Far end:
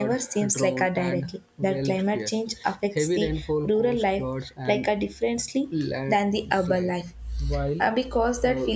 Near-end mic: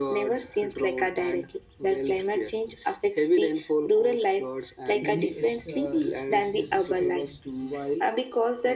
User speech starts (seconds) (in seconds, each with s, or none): 5.0 s